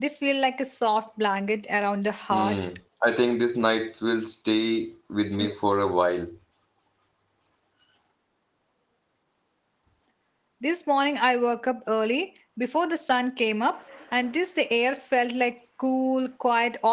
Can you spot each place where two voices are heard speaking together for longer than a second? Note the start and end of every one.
none

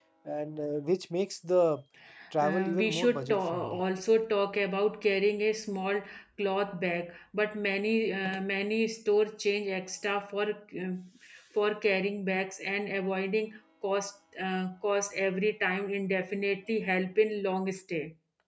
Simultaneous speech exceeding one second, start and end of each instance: 2.4-3.8

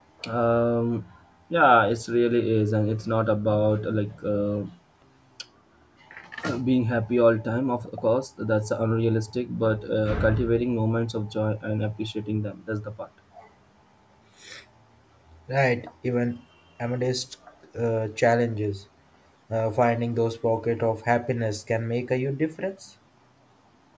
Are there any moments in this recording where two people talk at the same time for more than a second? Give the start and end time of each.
none

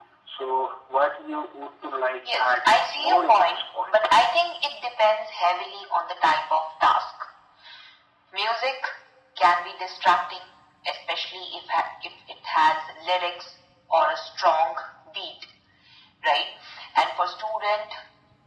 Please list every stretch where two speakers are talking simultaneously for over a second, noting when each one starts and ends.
2.4-4.2

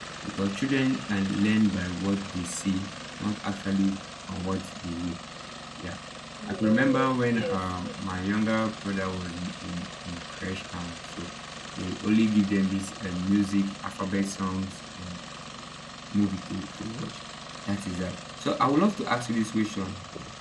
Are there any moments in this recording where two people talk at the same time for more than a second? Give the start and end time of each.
6.5-8.0

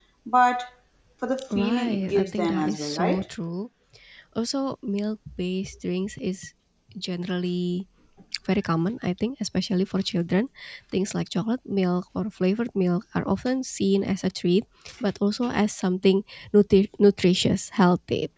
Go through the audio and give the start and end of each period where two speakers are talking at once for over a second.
1.5-3.2

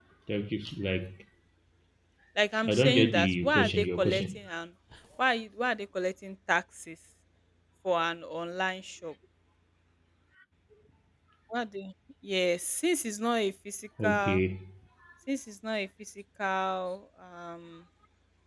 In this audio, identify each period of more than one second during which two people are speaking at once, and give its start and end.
2.6-4.4

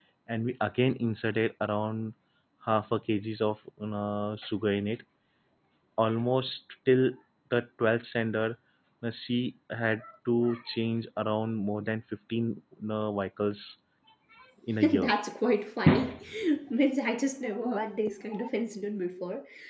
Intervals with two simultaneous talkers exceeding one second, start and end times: none

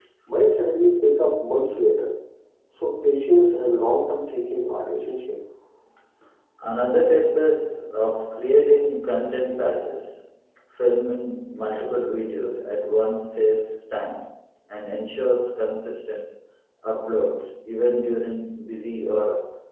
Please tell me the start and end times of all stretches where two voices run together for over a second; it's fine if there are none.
none

